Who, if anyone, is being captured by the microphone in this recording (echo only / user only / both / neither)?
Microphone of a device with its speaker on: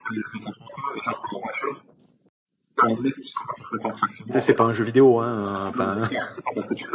both